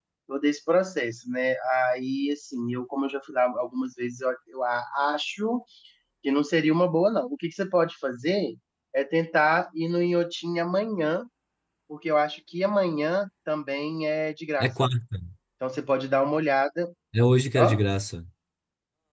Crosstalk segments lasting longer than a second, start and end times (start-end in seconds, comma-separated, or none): none